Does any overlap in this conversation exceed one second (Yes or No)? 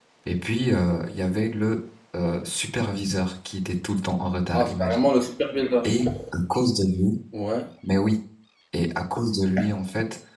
No